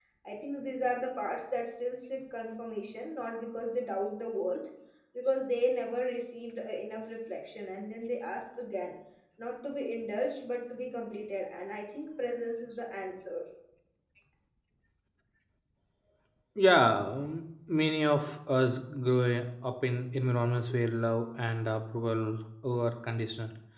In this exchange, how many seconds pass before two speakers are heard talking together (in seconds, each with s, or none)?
none